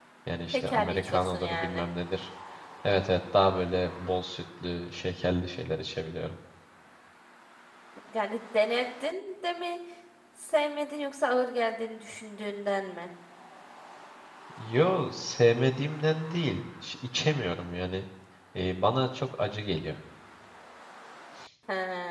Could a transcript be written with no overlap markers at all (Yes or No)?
No